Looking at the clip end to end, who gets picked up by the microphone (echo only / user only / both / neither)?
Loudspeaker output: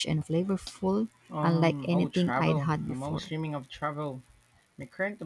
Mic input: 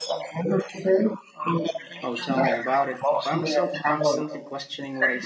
both